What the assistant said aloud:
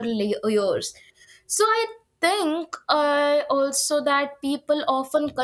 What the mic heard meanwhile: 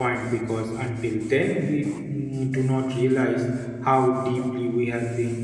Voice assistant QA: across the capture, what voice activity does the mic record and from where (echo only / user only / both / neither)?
user only